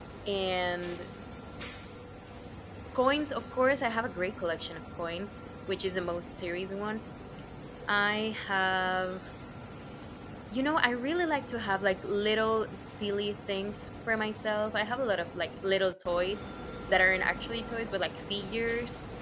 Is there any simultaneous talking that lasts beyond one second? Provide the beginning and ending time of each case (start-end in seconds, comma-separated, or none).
none